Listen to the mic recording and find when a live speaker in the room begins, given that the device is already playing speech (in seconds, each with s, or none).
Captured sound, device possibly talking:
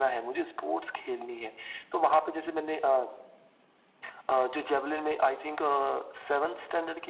none